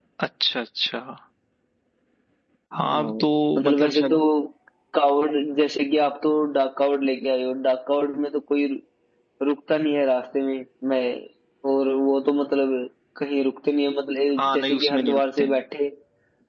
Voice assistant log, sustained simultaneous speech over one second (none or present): present